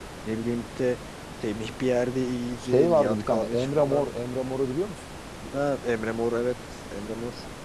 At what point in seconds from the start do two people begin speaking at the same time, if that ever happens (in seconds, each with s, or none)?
2.6 s